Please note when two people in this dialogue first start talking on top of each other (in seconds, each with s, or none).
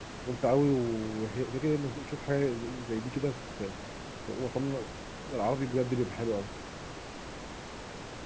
none